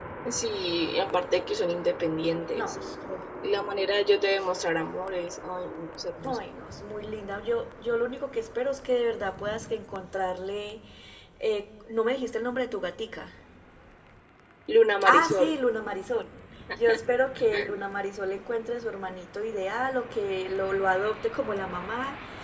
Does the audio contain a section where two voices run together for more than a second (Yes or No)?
No